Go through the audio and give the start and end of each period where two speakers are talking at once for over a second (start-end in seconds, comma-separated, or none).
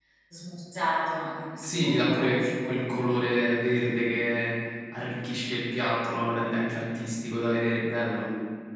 1.6-3.1